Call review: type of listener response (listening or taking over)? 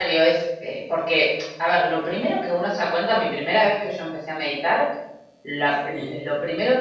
listening